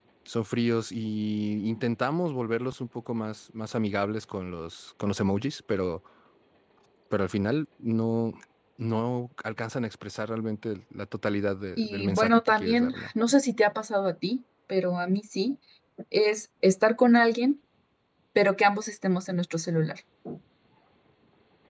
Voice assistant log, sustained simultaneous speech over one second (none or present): present